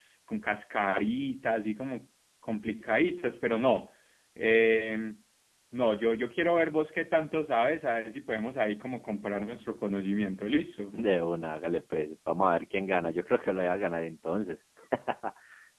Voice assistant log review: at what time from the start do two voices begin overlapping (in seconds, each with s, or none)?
none